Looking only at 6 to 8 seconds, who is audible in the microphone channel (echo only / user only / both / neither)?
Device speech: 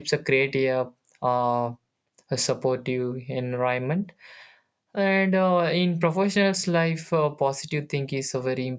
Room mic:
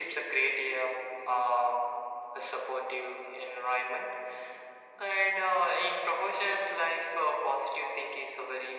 echo only